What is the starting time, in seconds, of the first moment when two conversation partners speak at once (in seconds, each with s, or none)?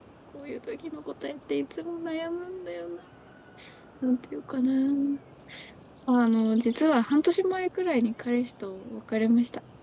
none